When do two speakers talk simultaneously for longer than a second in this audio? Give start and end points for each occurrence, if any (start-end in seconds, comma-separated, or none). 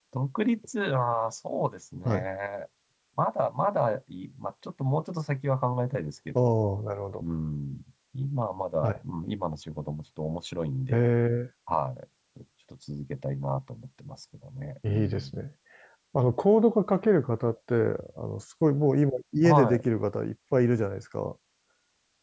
none